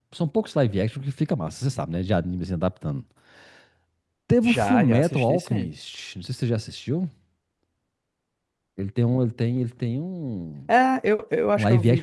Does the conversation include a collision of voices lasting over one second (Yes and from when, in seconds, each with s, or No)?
Yes, from 4.4 s